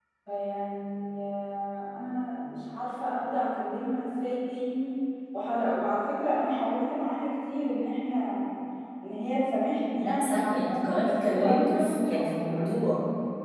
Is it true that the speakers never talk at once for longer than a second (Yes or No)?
No